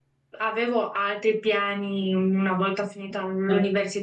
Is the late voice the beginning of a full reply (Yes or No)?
No